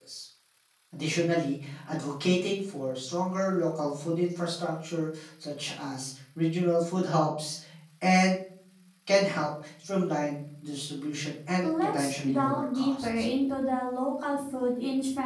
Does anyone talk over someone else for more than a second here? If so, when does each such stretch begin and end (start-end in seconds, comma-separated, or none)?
11.6-13.3